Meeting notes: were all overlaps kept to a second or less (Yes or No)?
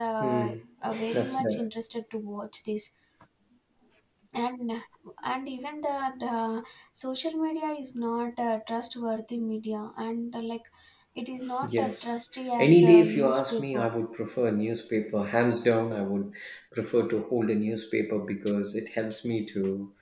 No